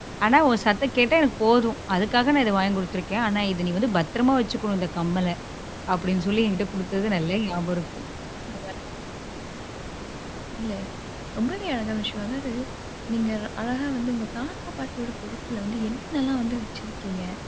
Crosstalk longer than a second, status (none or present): none